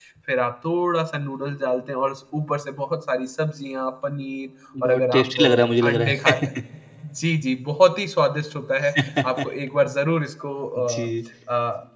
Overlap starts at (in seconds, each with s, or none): 4.8 s